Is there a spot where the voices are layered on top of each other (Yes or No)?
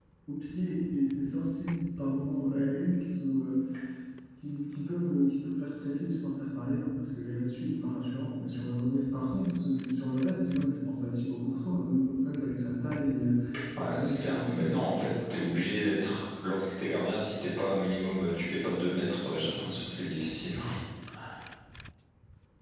Yes